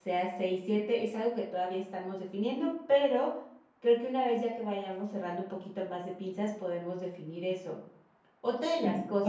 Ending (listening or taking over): listening